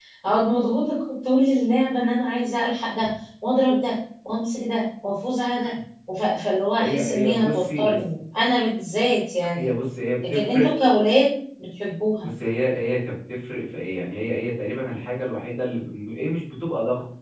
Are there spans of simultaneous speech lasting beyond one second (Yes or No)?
Yes